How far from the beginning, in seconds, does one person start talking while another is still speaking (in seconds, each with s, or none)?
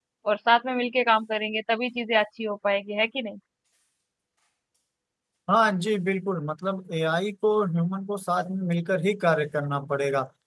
none